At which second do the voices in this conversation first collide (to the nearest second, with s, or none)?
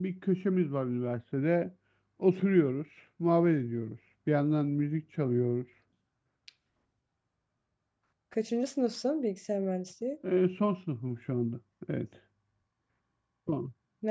none